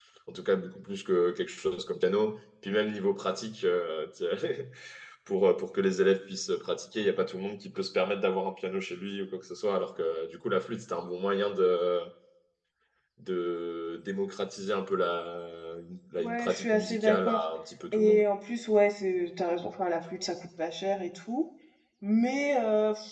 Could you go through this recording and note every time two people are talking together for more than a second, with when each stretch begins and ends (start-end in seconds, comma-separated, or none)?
16.2-17.4